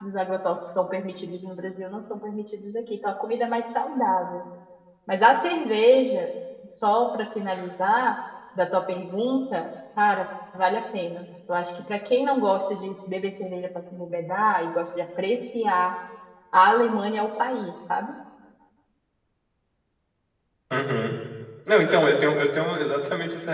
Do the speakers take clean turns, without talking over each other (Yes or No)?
Yes